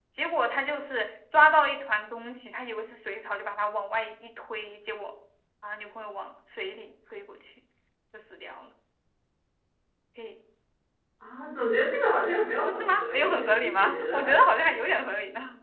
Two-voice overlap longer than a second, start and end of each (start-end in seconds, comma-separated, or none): 12.6-14.5